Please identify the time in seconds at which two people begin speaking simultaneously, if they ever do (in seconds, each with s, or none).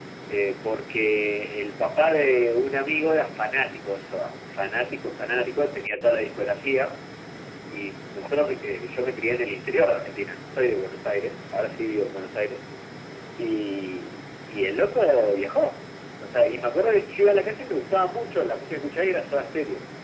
none